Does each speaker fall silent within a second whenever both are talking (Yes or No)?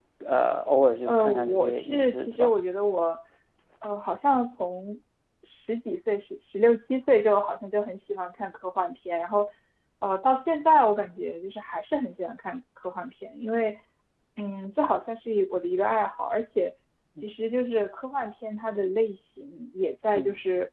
No